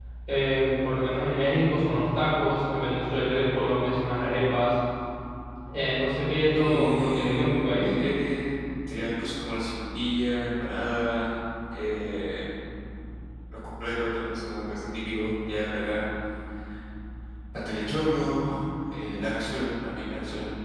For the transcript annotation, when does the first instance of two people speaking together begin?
6.5 s

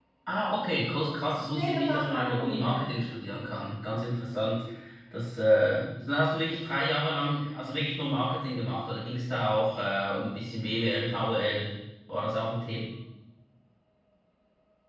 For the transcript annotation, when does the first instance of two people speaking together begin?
1.5 s

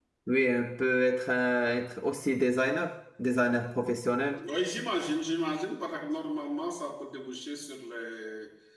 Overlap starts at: none

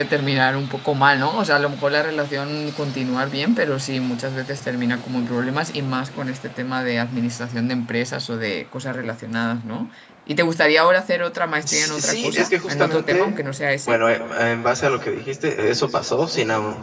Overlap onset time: 11.6 s

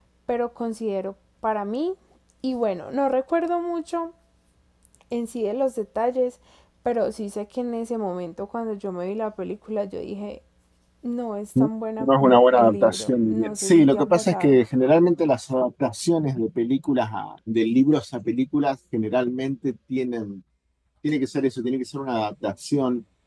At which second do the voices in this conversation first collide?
12.0 s

